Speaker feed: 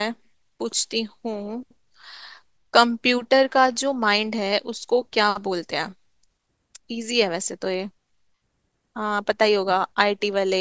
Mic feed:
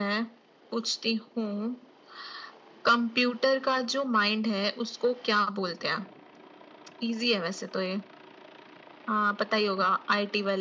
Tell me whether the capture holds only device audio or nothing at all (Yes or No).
Yes